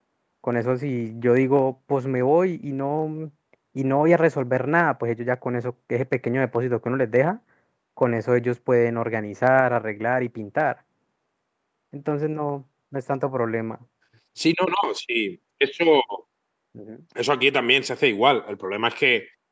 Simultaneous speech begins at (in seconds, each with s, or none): none